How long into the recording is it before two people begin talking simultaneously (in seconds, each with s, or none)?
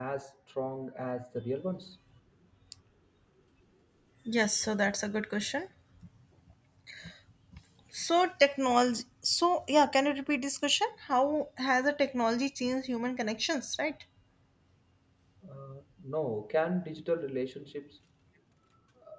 none